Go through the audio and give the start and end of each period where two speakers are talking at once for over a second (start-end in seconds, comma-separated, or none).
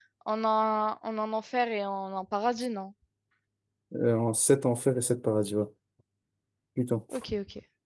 none